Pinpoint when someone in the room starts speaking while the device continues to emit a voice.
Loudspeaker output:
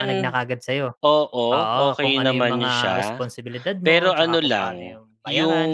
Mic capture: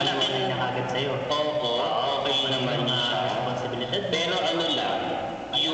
2.4 s

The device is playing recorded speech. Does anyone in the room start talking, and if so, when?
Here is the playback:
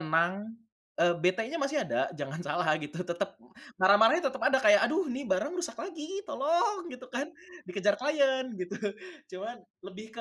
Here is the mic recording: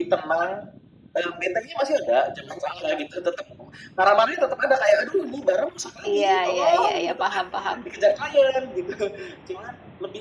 6.0 s

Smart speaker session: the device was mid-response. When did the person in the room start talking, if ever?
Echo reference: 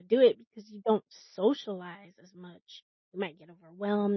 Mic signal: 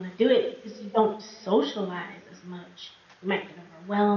none

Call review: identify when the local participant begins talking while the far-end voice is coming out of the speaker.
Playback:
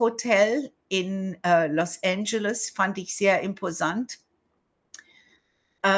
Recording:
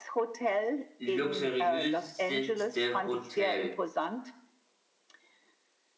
1.0 s

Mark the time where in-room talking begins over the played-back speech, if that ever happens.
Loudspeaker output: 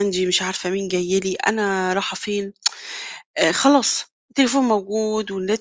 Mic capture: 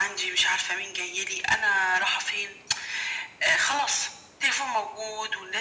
none

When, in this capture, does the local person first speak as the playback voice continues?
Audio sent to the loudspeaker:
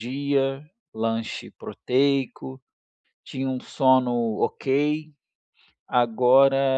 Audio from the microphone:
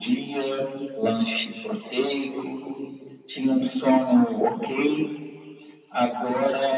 none

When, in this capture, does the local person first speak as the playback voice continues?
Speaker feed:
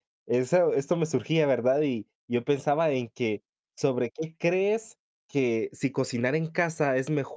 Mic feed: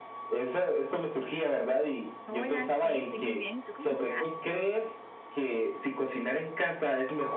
2.3 s

